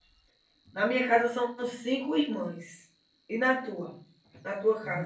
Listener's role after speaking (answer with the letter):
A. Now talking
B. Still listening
A